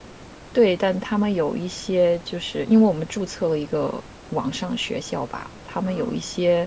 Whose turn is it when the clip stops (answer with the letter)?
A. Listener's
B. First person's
B